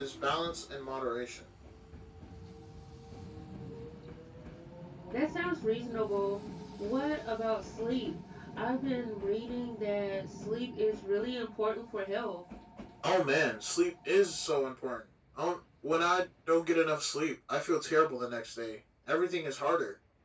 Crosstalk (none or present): none